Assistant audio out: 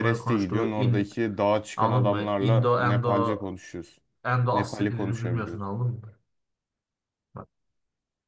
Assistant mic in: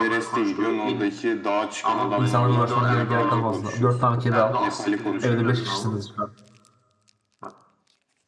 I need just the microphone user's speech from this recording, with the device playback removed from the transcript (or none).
İnsanlara uğraşmana gerek, gerek kalmazdı. Dört tane kedi al. Evde beş kişisiniz.